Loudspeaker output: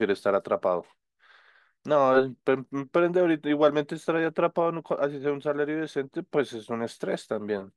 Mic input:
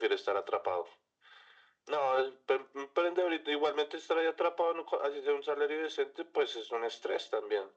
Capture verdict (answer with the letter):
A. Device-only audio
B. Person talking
A